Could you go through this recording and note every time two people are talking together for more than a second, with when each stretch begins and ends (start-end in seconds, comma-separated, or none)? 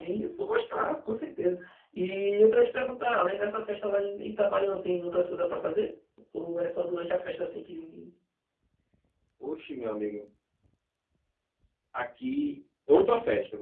none